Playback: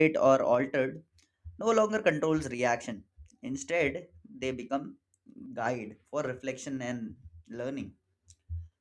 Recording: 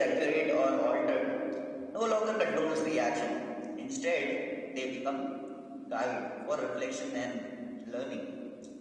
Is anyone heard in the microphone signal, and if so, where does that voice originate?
echo only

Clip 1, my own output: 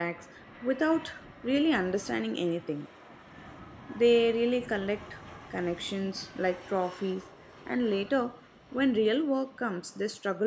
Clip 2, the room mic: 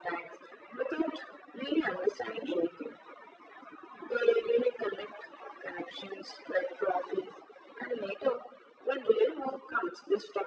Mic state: echo only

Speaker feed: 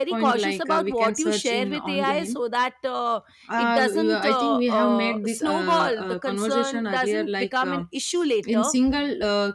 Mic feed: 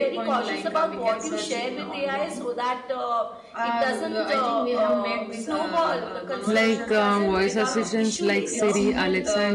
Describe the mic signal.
both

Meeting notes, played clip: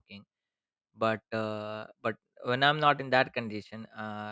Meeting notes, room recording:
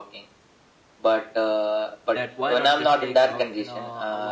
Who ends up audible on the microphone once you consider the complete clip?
both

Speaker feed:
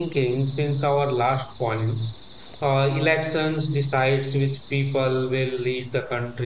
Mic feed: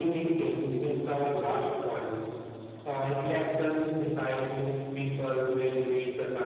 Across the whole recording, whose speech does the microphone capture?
echo only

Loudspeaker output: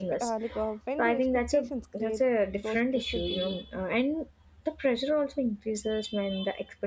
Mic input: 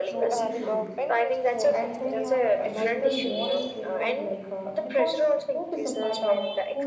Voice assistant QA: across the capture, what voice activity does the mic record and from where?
both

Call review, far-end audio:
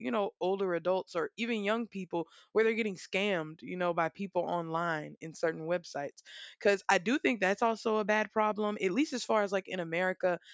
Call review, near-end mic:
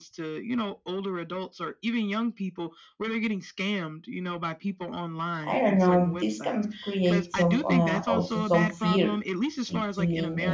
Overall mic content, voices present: both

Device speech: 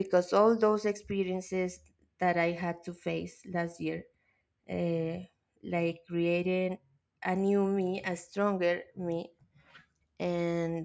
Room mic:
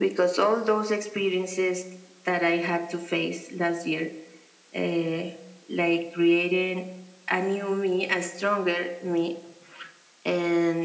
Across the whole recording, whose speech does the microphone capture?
echo only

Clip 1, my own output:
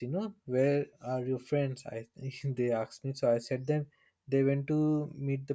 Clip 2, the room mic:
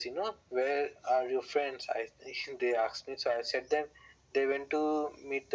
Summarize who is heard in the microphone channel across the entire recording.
echo only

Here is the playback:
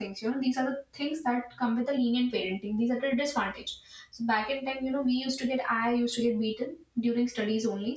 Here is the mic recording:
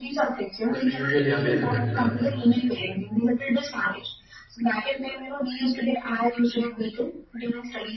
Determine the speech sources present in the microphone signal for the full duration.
both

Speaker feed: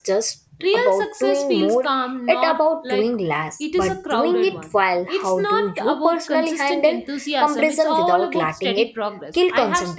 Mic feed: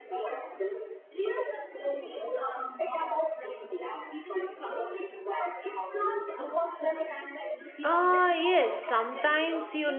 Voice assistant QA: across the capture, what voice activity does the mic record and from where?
both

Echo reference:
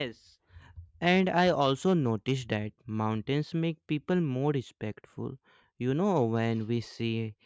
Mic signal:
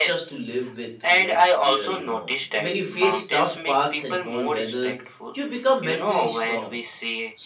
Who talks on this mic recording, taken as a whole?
both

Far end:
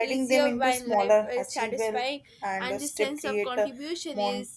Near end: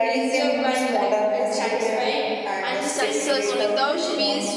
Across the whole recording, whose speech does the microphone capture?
both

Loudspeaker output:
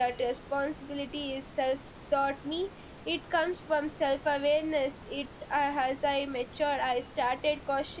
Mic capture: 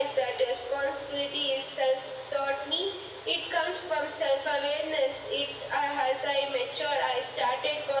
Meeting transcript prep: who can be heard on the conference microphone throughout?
echo only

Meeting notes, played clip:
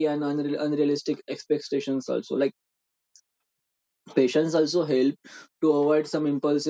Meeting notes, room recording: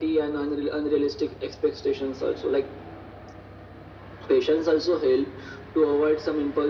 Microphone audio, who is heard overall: echo only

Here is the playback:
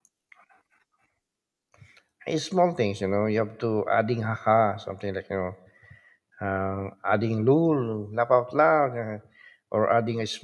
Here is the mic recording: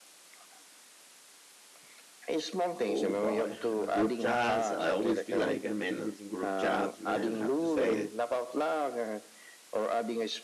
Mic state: both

